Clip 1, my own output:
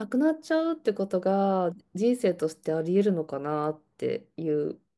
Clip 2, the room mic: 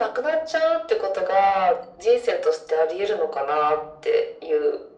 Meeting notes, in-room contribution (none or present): none